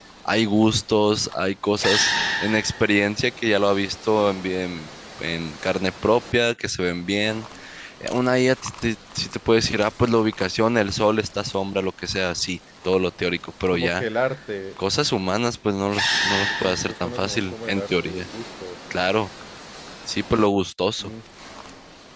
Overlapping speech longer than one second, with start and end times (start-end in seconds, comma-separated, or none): 16.6-18.3